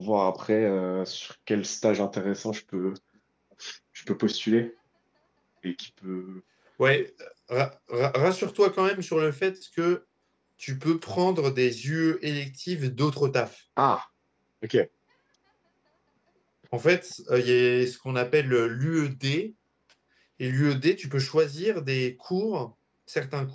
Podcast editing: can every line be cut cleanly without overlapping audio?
Yes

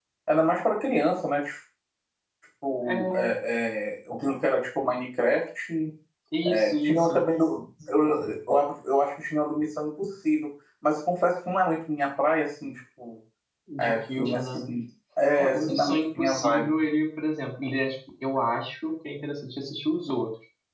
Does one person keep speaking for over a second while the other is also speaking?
Yes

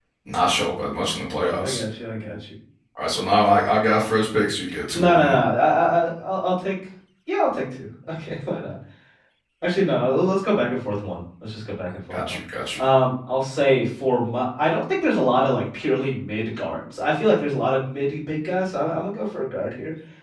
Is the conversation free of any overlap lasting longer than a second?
Yes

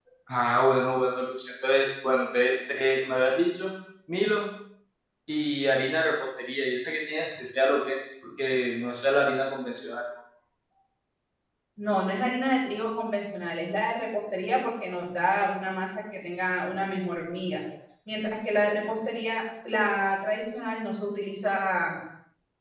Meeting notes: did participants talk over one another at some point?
No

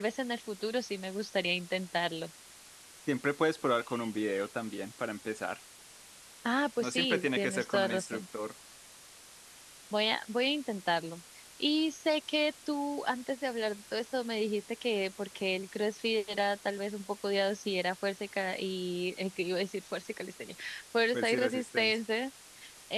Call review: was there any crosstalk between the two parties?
Yes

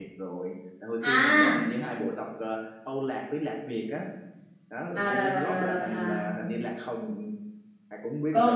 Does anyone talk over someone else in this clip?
Yes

